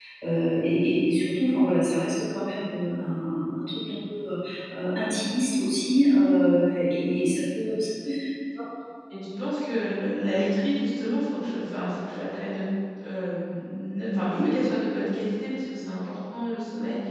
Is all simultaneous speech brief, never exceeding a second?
Yes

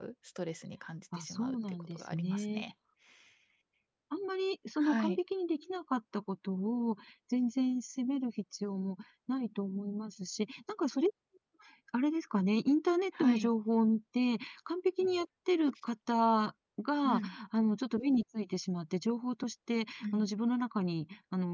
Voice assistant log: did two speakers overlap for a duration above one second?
Yes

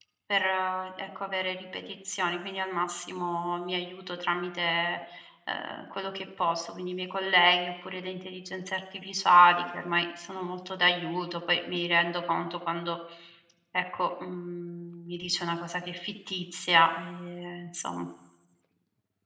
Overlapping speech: No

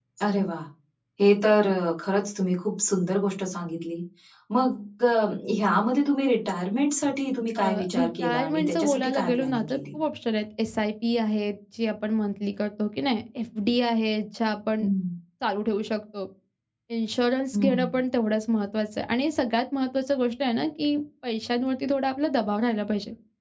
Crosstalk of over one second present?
Yes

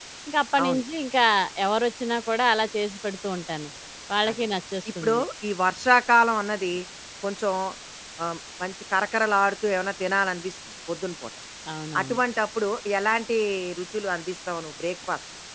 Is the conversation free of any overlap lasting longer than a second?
Yes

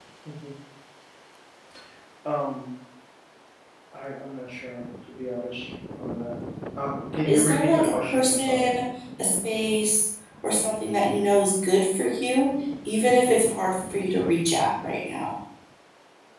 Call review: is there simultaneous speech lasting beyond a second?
Yes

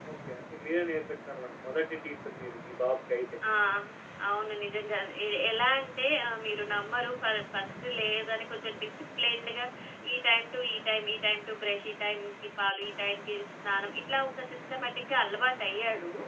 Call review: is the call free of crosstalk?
Yes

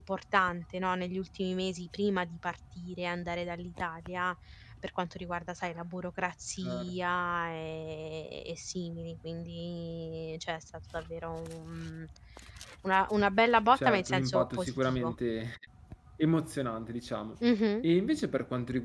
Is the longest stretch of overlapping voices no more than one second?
No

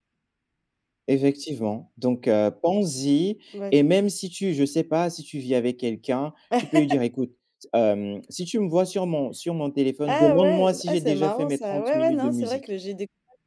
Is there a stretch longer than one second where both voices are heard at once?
Yes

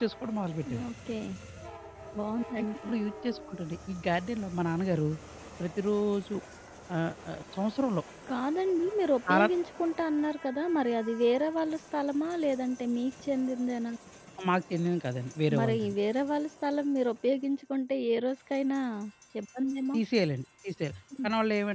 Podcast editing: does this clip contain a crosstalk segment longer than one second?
No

